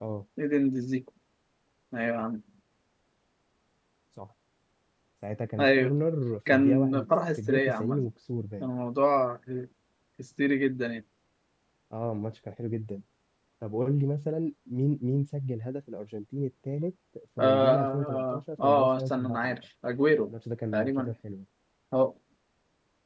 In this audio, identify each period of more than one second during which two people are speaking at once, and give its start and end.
6.5-8.0, 17.4-19.6

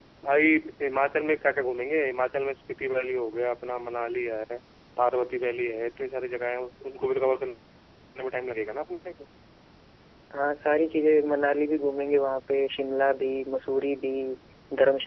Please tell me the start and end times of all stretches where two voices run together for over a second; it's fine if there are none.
none

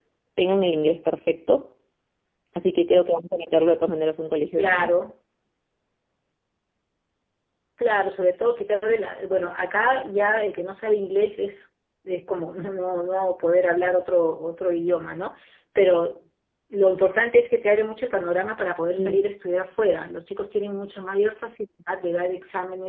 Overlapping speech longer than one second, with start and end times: none

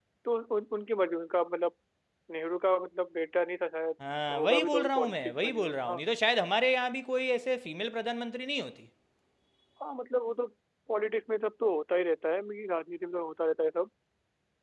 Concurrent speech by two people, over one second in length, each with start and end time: 4.3-6.0

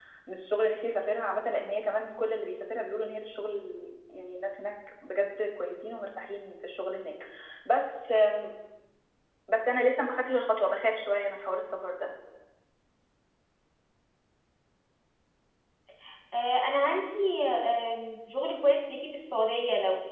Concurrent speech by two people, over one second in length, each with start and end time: none

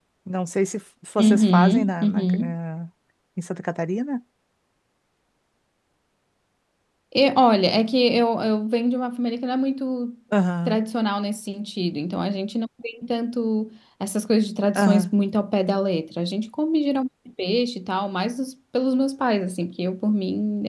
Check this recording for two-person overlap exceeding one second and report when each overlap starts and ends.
1.2-2.5

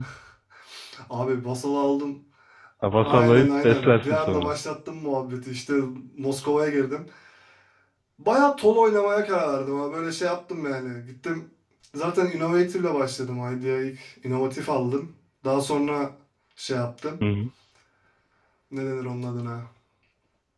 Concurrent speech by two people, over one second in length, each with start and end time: 3.0-4.5

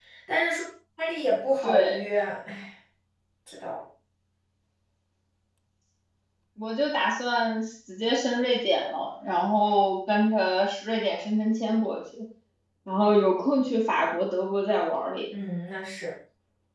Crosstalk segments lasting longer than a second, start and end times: none

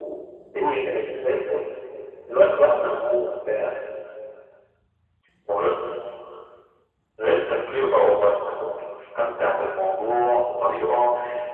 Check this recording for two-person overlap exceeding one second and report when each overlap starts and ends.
none

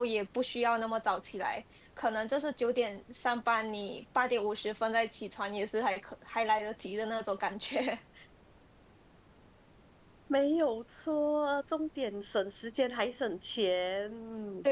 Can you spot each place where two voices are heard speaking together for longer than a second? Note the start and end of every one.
none

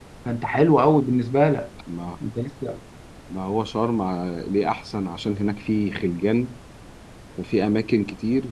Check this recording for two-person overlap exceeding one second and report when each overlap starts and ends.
none

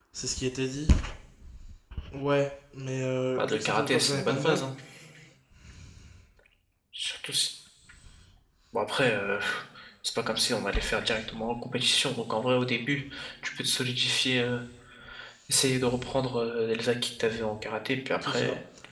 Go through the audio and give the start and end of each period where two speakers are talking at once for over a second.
3.4-4.6

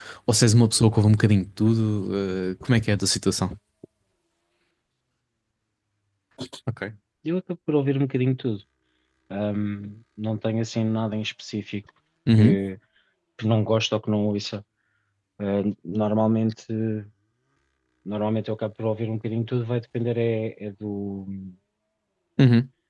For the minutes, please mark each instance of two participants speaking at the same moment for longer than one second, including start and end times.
none

